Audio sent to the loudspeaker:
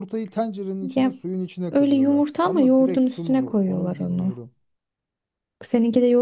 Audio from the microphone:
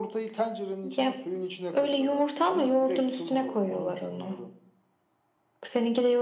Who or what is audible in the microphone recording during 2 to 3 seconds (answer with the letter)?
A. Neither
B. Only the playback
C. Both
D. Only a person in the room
B